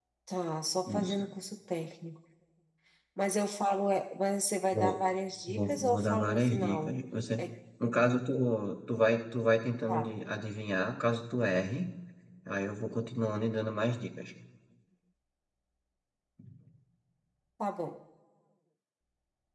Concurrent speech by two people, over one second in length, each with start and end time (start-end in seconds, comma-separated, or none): 5.5-6.9